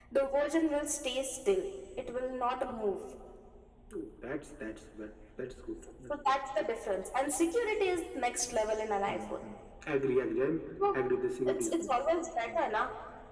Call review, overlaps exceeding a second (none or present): none